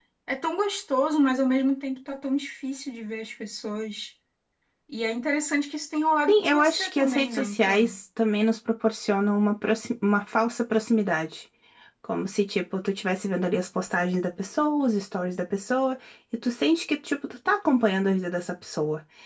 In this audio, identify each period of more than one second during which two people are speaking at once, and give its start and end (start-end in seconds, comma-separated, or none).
6.3-8.0